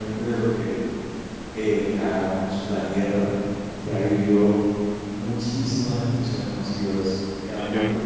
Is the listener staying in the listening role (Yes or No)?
Yes